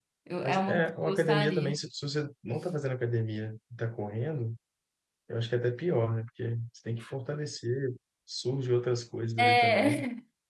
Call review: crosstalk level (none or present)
present